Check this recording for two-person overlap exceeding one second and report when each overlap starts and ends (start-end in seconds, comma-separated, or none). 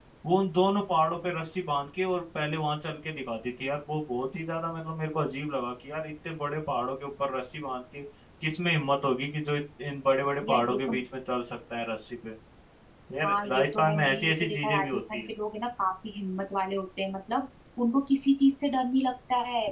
13.2-15.2